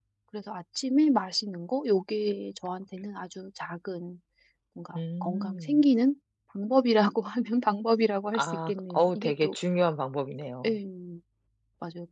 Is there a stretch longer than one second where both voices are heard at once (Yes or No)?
Yes